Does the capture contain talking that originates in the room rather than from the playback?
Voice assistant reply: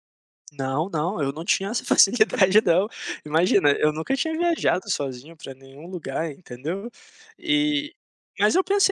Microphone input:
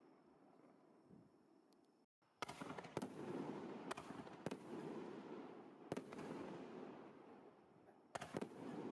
No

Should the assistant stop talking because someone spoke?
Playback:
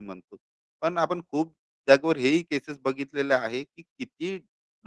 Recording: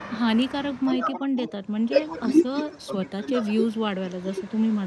Yes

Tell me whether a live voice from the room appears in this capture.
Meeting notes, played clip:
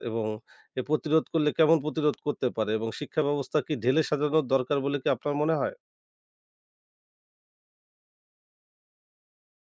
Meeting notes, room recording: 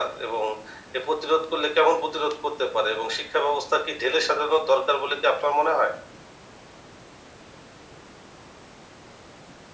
No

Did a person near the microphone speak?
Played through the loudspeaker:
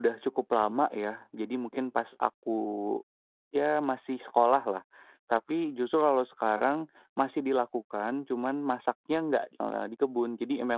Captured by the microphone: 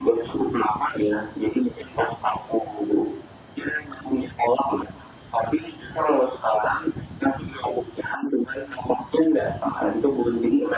No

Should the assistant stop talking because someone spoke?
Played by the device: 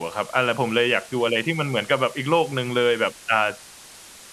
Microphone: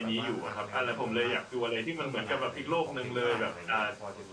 Yes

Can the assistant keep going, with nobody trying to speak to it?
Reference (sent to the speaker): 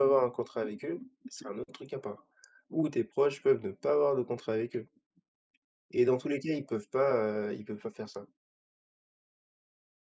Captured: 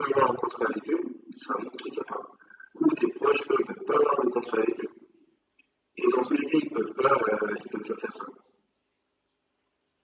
Yes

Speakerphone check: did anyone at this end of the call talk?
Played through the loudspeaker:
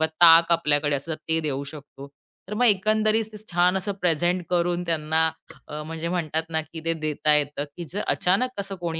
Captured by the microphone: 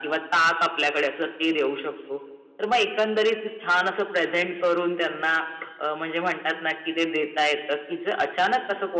No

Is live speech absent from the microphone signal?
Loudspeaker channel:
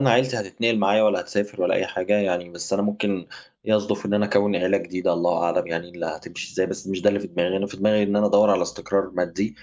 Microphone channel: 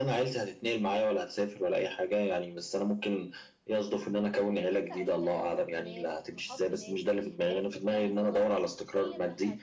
No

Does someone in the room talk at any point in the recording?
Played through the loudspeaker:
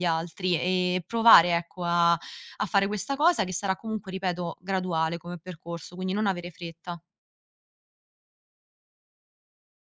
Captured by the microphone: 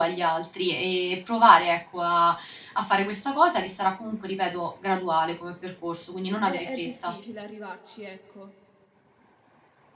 Yes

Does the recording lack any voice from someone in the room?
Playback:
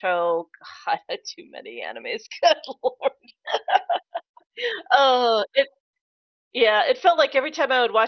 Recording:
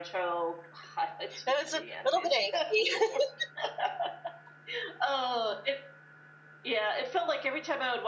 No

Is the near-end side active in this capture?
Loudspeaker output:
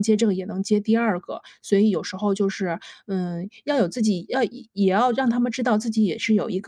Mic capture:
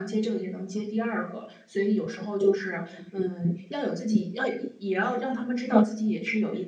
No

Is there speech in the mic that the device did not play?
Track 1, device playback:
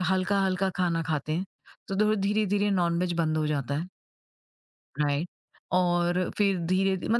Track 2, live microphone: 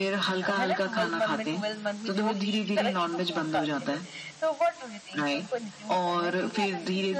Yes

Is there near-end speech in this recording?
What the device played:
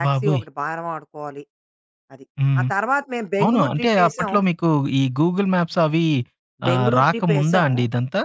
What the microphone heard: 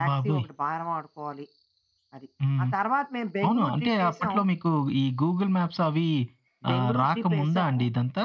No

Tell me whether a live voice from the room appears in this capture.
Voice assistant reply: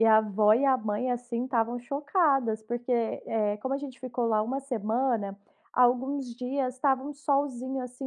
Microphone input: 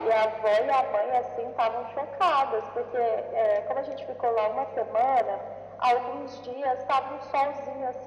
No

